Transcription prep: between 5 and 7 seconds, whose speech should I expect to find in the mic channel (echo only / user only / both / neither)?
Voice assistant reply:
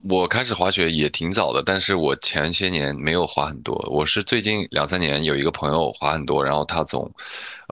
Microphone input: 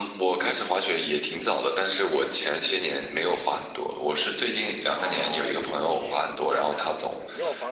both